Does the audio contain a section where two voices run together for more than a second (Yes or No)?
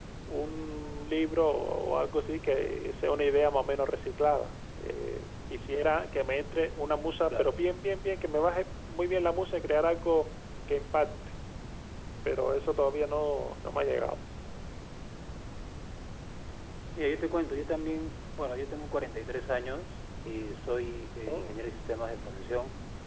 No